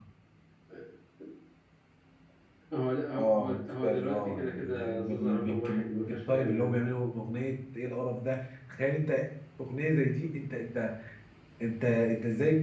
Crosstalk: present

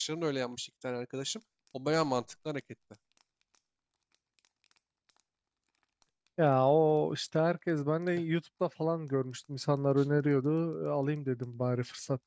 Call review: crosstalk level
none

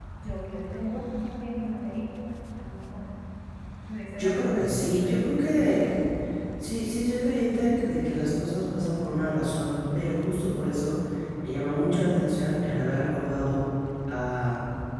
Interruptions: present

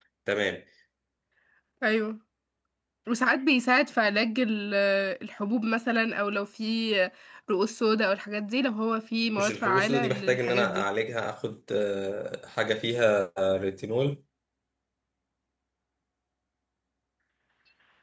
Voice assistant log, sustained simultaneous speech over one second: present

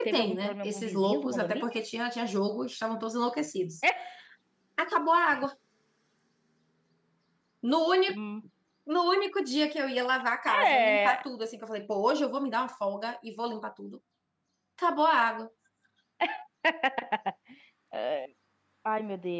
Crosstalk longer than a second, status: present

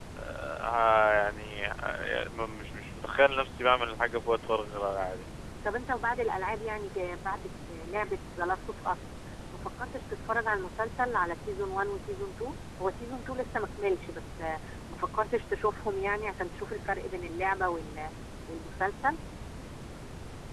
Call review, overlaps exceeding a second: none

